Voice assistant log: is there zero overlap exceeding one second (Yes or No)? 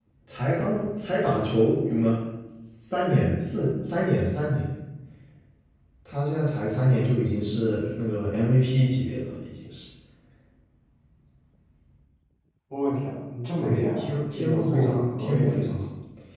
No